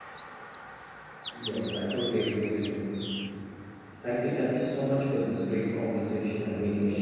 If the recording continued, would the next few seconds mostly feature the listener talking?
Yes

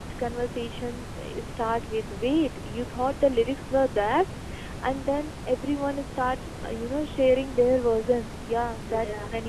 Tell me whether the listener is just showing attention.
Yes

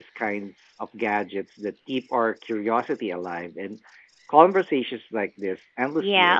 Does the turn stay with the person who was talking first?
No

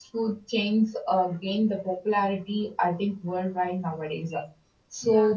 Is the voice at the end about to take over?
No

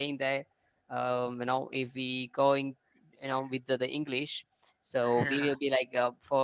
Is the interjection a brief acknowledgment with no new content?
Yes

